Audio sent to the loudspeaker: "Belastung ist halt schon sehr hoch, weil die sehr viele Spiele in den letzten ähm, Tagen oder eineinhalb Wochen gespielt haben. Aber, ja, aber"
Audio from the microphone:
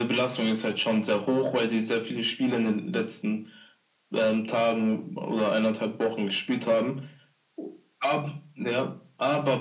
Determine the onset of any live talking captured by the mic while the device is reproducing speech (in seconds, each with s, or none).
none